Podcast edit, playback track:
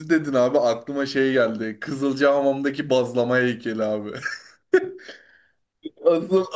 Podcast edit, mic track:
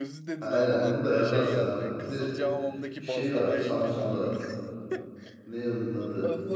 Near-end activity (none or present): present